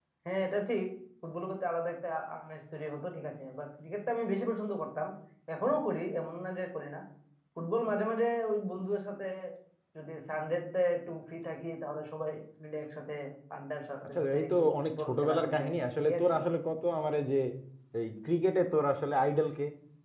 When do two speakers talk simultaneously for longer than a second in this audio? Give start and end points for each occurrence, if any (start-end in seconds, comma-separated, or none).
14.2-16.2